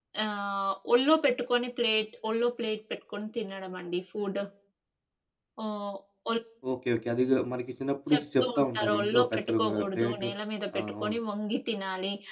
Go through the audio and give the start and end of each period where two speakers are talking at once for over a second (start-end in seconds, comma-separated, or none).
8.1-10.3